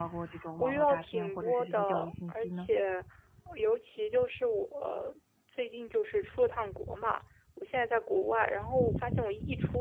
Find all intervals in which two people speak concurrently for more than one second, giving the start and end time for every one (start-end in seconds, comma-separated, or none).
0.6-2.7